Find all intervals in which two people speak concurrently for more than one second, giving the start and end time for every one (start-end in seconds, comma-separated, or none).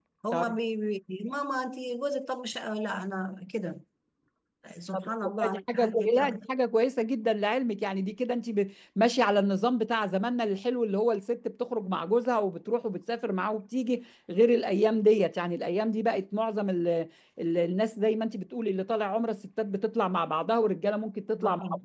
4.9-6.4